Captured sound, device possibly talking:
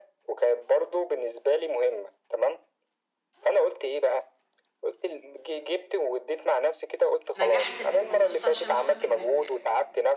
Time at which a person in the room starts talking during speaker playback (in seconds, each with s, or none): 7.3 s